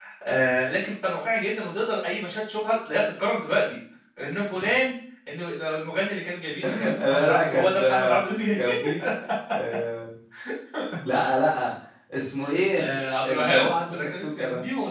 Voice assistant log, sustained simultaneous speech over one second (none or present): present